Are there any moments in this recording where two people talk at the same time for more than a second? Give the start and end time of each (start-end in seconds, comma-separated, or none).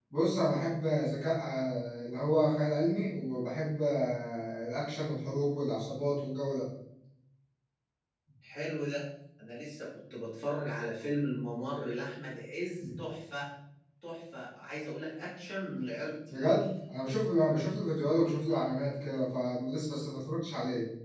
none